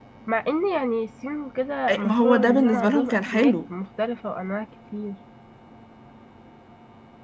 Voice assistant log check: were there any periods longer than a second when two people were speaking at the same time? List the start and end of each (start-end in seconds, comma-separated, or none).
1.9-3.5